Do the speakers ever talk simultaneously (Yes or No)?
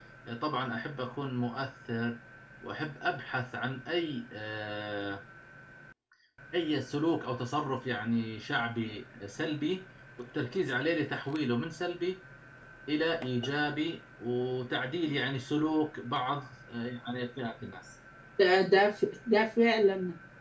No